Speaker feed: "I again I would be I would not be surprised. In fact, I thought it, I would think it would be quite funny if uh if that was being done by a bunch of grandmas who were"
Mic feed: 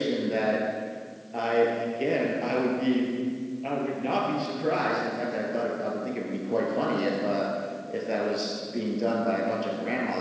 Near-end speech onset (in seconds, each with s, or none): none